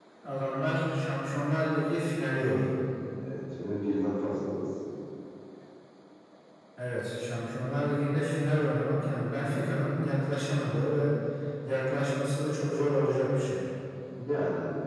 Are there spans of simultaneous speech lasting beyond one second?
No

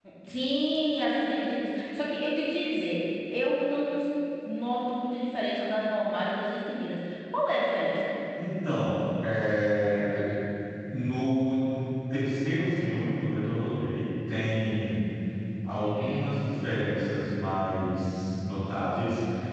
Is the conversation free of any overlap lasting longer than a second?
Yes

